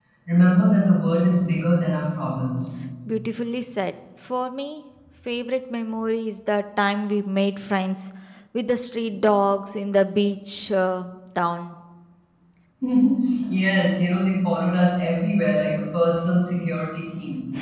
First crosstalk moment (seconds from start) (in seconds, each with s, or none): none